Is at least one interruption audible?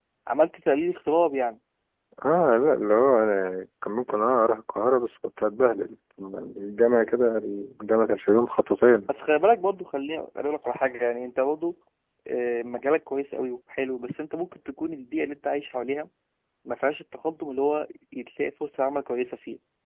No

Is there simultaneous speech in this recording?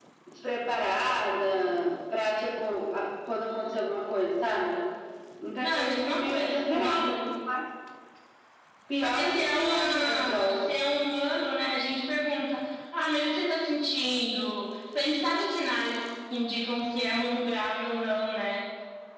Yes, from 5.6 s

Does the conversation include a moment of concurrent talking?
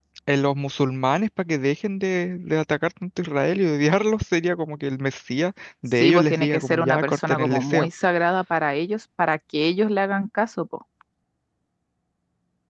Yes, from 6.0 s

